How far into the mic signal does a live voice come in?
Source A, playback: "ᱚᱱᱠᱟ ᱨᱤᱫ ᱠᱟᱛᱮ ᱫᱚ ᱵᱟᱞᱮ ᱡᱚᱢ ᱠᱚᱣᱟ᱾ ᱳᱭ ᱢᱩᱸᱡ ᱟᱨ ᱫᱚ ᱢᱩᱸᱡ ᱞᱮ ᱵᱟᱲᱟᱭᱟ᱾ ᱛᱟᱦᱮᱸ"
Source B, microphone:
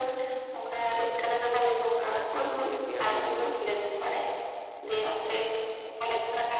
2 s

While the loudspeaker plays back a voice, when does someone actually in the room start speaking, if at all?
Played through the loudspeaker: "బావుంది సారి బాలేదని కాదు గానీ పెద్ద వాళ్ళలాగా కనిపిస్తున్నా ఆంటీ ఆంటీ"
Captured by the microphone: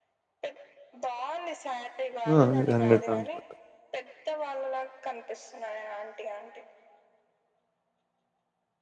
2 s

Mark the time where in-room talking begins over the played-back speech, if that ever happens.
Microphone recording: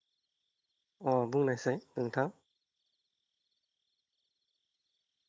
1 s

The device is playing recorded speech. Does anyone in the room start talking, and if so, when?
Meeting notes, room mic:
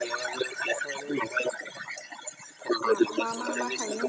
3 s

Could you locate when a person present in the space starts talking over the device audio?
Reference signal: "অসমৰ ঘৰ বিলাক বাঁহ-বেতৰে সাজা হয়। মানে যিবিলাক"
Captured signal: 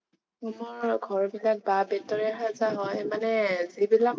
none

